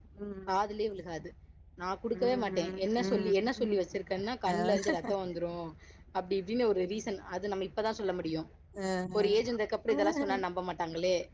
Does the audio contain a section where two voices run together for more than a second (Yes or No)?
Yes